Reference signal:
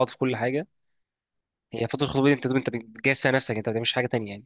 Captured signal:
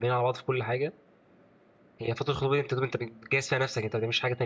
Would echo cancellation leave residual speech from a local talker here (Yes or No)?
No